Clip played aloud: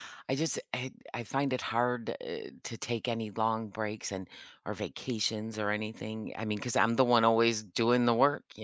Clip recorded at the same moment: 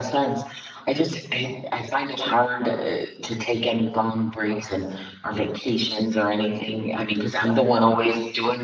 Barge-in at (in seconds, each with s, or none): none